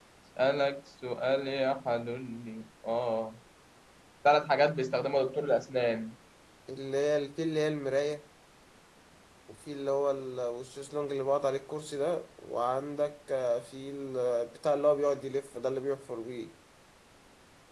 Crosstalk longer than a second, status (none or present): none